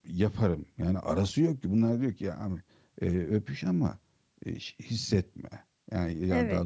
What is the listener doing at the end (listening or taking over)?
taking over